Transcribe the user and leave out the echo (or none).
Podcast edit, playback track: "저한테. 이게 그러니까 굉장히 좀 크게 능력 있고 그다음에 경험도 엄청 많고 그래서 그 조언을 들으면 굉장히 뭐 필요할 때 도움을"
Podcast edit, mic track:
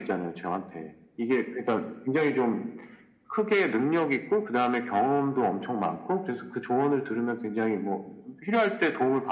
none